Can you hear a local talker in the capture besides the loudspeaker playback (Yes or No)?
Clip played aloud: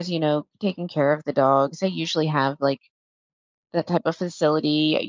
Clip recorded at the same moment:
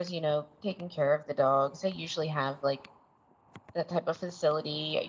No